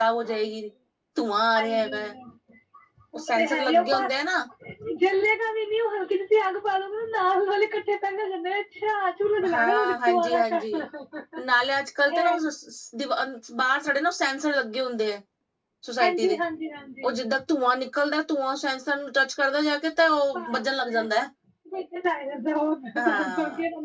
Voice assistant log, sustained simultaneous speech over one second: present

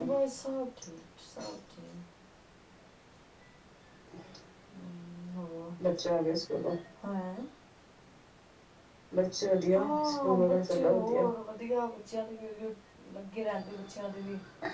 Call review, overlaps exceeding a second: present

